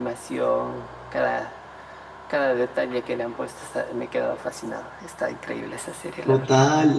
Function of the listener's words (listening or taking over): taking over